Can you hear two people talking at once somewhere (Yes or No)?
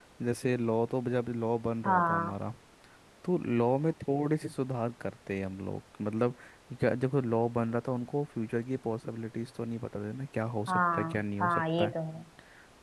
Yes